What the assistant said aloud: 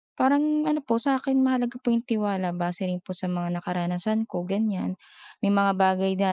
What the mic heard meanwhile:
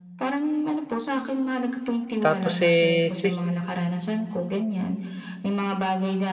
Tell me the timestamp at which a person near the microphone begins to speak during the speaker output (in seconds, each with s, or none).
2.2 s